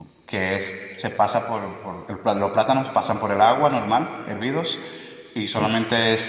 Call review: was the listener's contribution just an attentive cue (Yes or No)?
Yes